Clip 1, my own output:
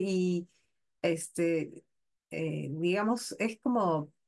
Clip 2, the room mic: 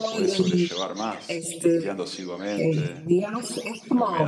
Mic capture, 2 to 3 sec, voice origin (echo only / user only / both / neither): both